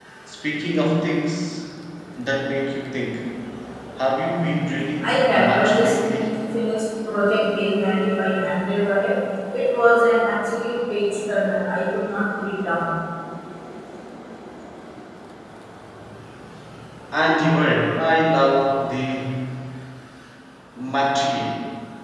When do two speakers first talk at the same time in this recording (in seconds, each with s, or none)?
5.0 s